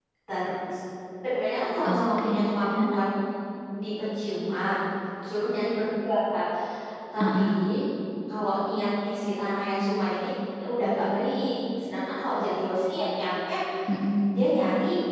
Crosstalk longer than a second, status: present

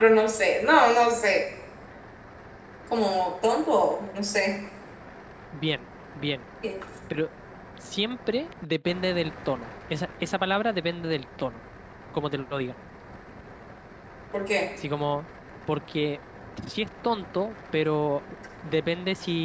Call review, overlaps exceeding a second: none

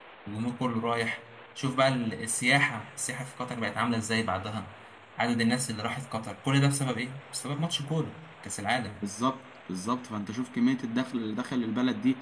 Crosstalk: none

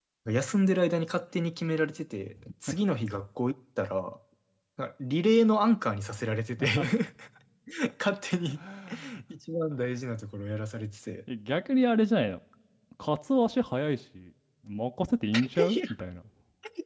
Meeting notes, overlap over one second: none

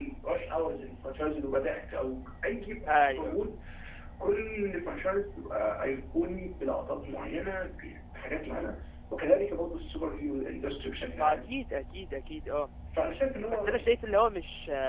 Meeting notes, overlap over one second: none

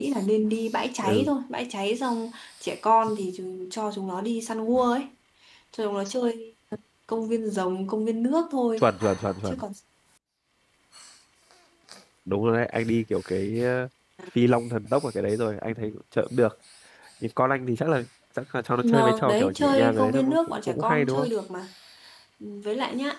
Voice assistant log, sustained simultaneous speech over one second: present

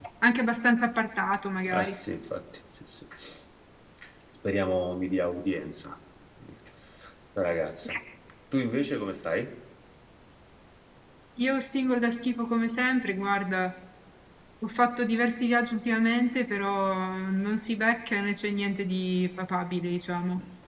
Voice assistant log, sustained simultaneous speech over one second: none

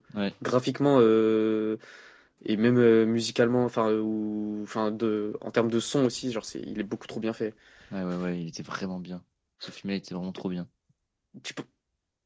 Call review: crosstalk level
none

